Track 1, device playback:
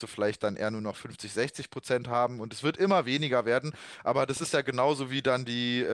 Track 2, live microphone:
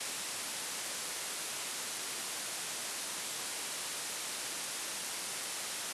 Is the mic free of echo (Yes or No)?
Yes